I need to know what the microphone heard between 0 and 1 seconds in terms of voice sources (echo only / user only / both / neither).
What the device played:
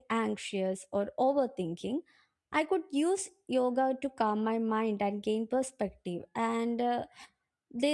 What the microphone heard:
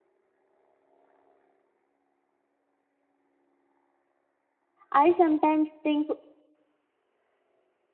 neither